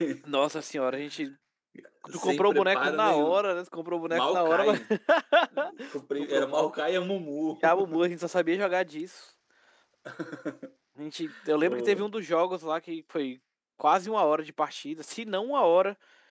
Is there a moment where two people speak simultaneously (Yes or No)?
Yes